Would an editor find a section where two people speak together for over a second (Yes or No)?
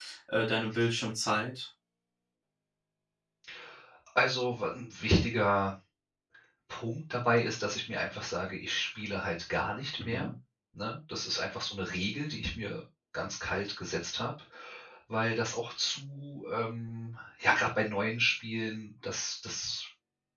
No